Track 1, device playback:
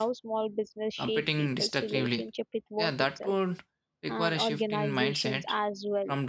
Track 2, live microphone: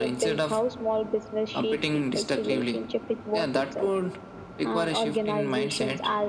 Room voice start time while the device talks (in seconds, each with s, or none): none